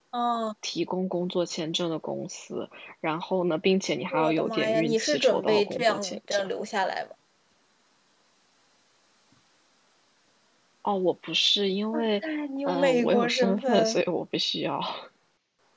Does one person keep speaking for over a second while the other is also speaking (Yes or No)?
Yes